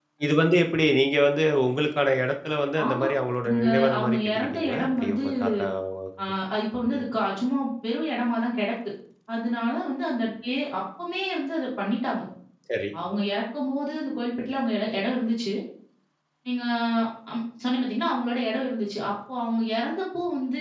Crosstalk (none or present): present